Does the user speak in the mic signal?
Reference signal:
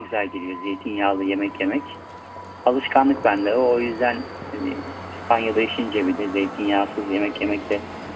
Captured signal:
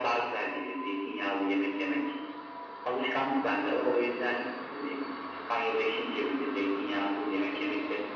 No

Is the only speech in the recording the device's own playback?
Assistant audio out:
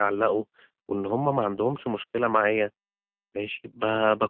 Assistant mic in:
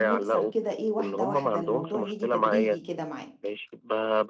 No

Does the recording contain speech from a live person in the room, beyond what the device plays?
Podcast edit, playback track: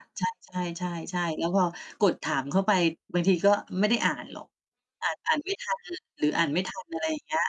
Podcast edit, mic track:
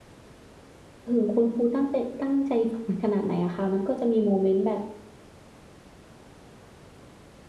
Yes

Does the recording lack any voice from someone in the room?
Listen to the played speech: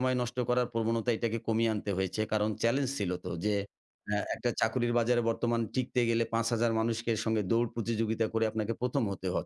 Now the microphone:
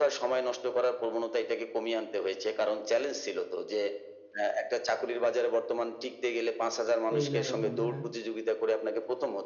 No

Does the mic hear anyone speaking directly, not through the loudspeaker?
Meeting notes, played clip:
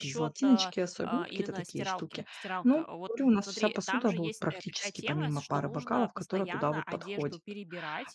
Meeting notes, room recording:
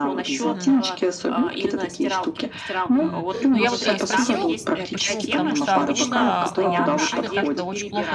Yes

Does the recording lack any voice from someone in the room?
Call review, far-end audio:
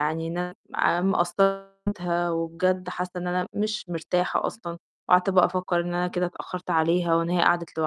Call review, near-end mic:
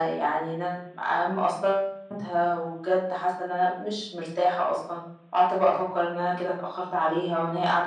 Yes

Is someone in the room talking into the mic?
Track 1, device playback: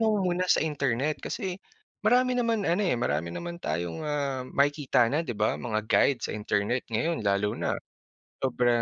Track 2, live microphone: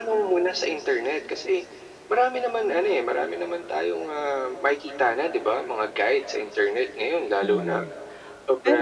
Yes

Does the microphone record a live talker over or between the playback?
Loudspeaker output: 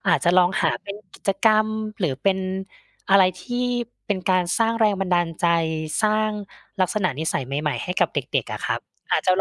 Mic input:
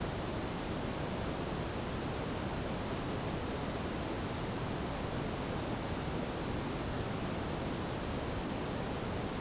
No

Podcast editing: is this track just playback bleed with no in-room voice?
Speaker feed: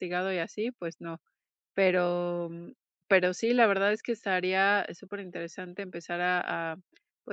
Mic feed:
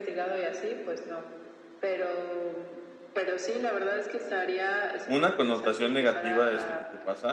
No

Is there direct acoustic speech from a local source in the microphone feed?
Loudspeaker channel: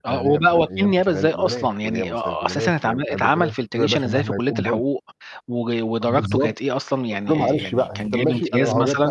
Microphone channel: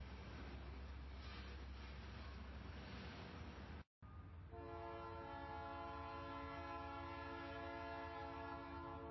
No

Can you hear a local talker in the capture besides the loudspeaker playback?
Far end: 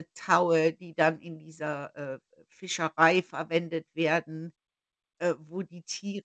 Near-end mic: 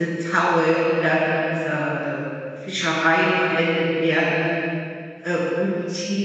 No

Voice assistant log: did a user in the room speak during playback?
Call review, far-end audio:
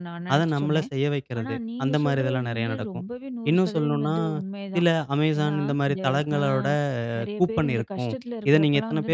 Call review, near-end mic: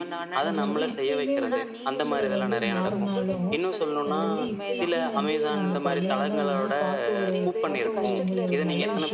Yes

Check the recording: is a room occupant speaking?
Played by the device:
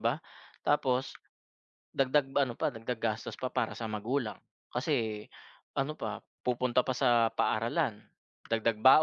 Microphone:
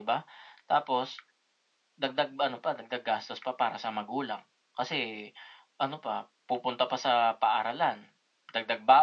No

